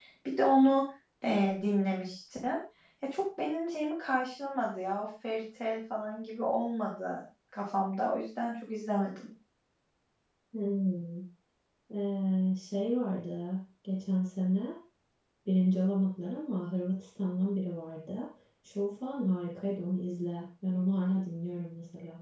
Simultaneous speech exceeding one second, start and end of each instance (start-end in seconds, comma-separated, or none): none